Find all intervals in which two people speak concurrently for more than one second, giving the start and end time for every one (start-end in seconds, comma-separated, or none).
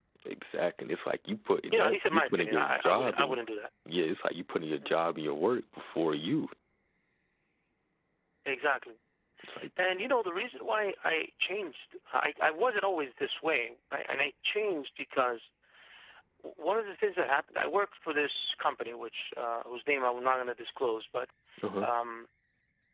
1.7-3.4